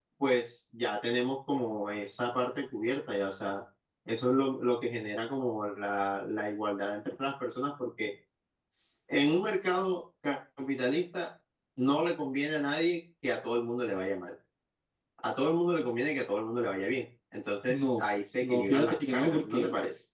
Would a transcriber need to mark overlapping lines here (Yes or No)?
Yes